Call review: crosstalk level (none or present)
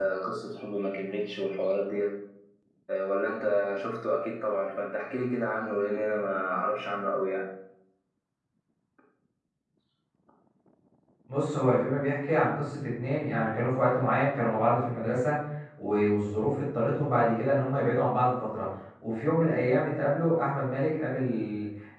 none